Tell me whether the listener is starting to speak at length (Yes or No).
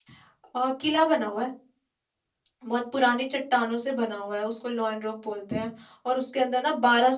No